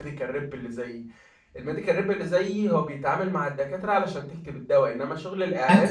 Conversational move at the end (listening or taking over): listening